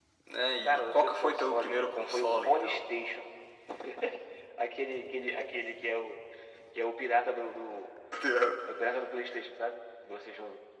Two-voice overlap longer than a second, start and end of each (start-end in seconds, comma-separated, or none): 0.7-2.8